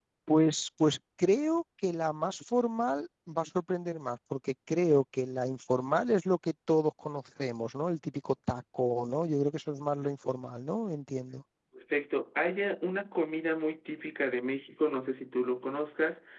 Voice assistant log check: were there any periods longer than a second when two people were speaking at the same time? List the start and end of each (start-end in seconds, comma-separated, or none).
none